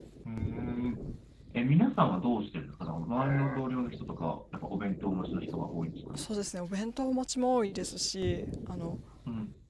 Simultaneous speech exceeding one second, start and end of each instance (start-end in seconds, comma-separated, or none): none